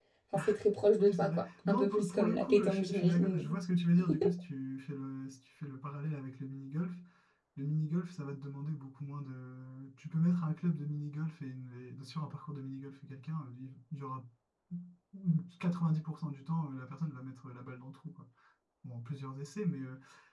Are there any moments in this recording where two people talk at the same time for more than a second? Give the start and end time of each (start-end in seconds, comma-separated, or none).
1.0-3.5